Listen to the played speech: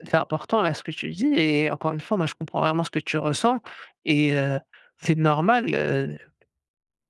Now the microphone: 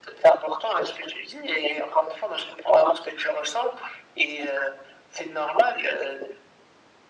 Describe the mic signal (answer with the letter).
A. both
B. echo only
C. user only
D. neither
B